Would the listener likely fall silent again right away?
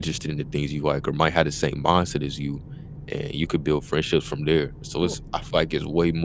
Yes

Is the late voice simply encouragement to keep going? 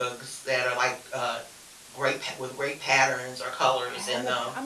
No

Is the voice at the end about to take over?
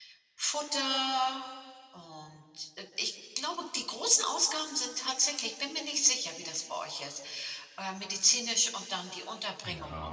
Yes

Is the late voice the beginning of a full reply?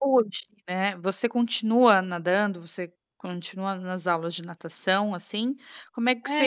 No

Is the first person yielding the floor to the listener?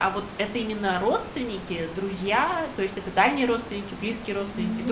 Yes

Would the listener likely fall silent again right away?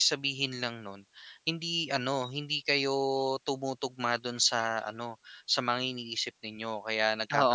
No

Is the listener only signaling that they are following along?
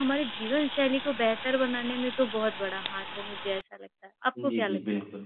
No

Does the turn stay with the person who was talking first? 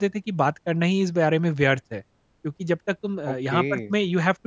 Yes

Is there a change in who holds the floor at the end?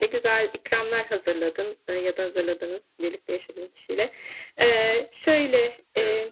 No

